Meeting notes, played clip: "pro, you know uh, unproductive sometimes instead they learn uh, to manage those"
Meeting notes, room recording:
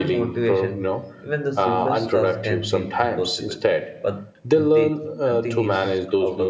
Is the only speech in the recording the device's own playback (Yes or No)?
No